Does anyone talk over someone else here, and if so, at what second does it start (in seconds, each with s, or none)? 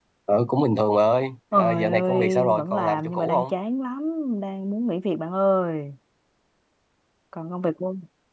1.5 s